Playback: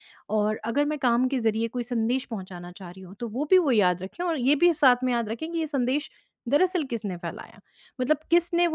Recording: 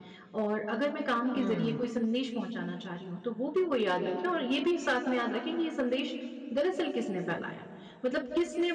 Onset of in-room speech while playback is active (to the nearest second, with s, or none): 1 s